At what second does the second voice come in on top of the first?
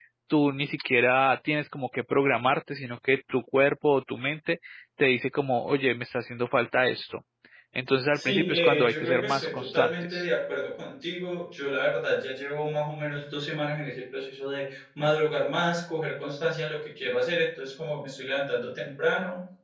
8 s

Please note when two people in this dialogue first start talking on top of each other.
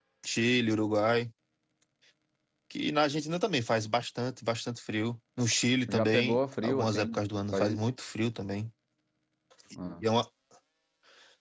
6 s

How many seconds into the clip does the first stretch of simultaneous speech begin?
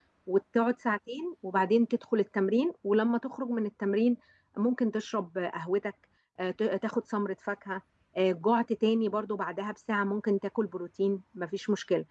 none

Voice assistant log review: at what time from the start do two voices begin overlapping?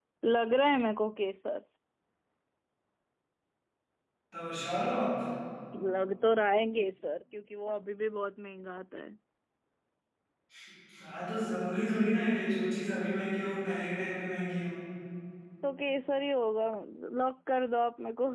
none

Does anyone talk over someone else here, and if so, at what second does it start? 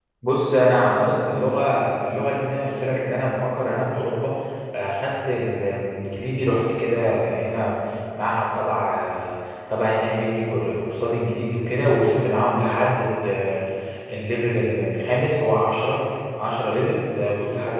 none

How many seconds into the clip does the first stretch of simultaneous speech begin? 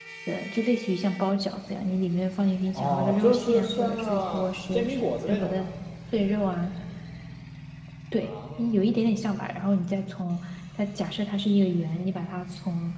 3 s

